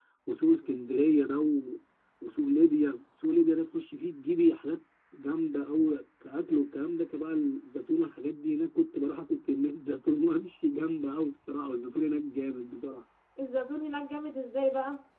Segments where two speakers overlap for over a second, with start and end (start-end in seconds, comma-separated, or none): none